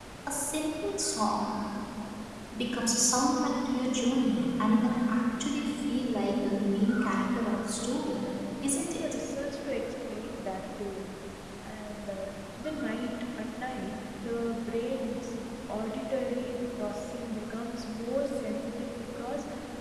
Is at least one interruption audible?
Yes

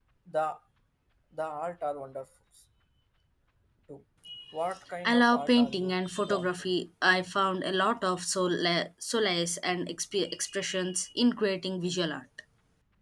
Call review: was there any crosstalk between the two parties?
Yes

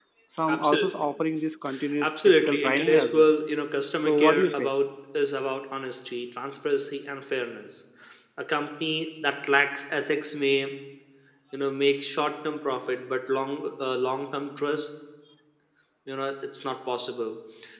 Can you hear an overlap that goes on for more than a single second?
Yes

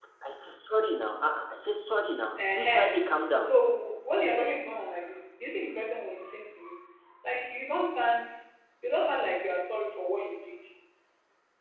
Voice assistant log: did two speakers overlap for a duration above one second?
No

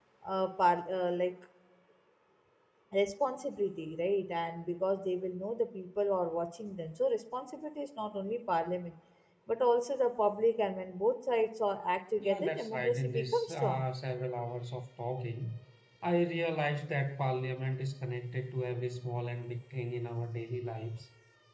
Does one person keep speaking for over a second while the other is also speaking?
Yes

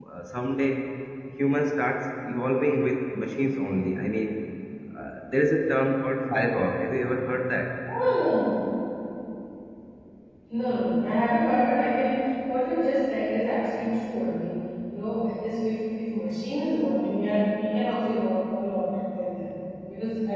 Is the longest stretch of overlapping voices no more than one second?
Yes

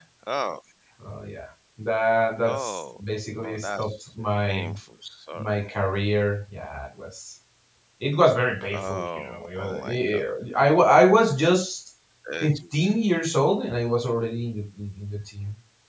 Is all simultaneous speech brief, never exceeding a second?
No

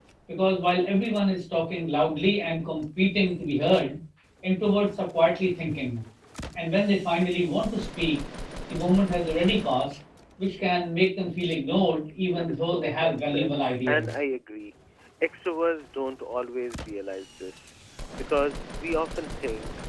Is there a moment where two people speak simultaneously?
Yes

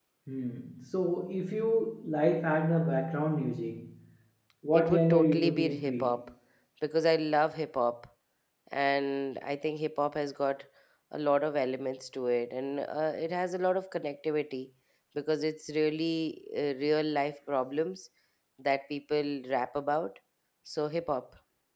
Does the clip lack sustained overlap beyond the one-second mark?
No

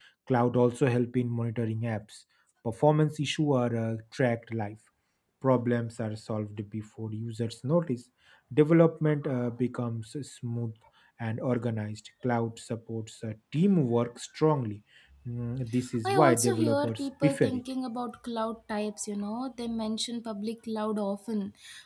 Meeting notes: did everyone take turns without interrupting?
No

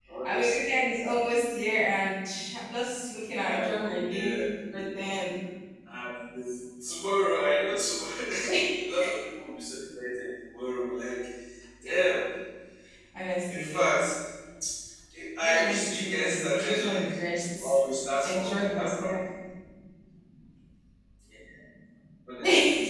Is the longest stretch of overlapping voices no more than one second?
No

